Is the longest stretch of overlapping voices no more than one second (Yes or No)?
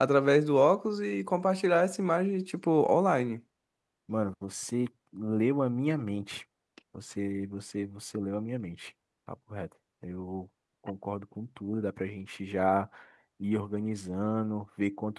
Yes